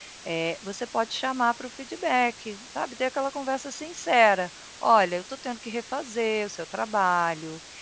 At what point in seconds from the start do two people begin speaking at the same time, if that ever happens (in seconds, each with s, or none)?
none